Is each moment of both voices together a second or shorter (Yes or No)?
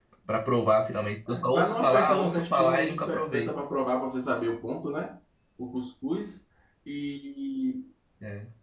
No